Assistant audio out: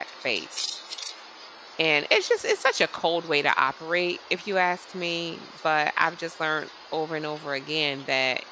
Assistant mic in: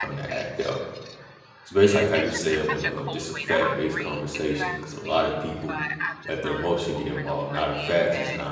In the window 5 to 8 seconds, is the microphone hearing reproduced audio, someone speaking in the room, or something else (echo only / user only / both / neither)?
both